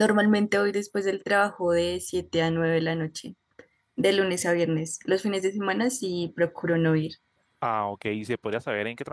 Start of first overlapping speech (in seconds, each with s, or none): none